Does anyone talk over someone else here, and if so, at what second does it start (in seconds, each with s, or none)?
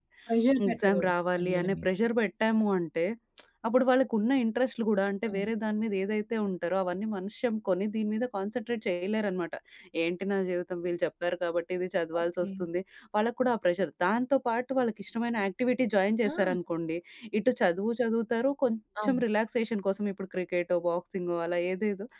0.7 s